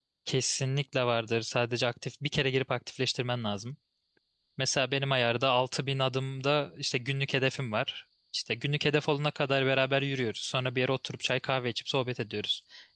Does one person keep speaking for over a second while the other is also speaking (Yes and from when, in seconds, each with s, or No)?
No